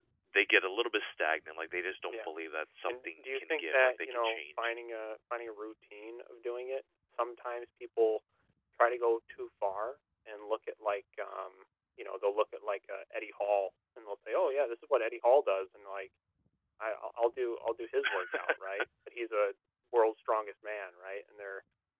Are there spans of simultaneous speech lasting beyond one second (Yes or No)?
Yes